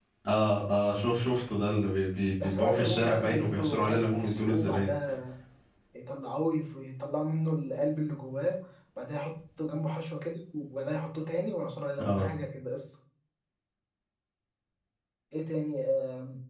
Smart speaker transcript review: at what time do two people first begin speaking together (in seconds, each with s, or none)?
2.4 s